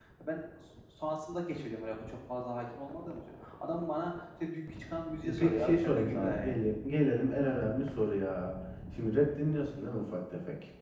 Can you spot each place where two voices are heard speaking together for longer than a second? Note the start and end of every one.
5.2-6.6

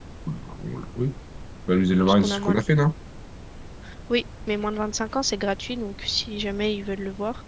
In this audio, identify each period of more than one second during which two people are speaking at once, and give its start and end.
none

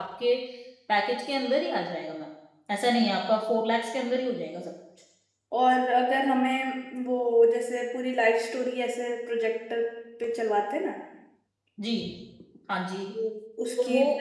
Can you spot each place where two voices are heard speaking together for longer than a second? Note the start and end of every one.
none

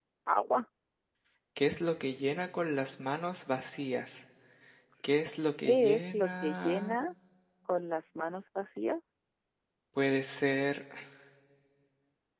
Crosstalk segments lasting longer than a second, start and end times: 5.6-7.0

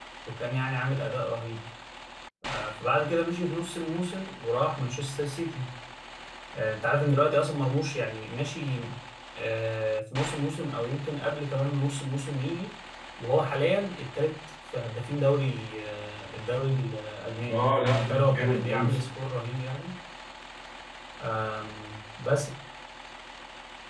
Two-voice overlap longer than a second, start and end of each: 17.5-19.1

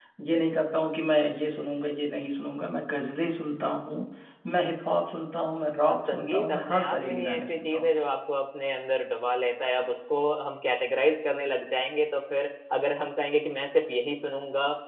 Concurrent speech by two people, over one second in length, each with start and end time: 6.1-7.9

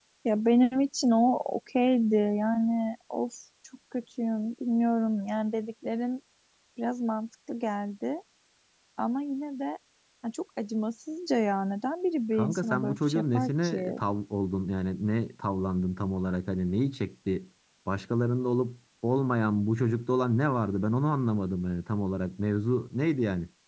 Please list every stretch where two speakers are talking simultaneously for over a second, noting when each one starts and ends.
12.4-14.0

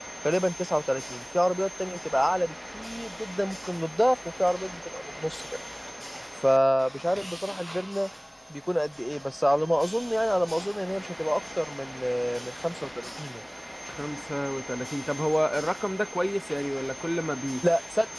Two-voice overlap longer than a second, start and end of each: none

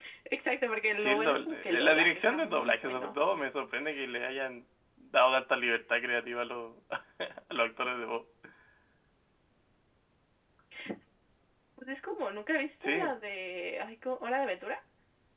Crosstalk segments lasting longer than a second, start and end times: 0.9-3.1

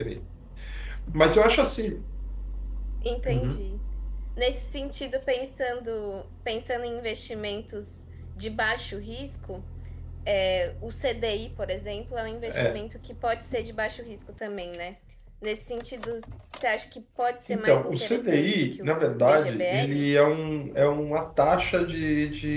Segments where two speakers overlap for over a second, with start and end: 17.5-20.1

